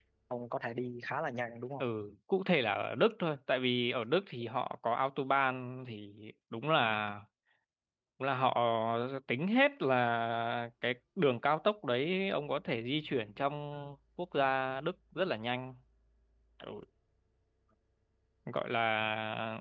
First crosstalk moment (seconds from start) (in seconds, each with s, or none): none